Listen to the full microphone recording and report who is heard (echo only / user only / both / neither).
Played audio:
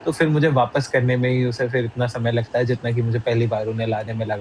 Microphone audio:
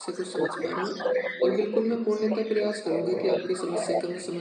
both